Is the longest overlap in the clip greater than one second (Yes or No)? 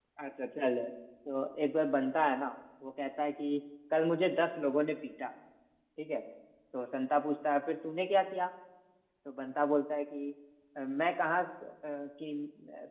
No